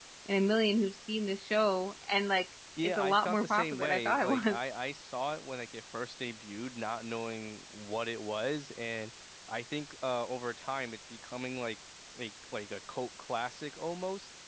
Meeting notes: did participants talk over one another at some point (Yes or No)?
Yes